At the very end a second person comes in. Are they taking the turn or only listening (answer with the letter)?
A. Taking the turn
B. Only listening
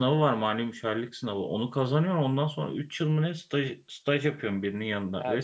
A